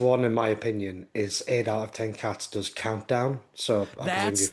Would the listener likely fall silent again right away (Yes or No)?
No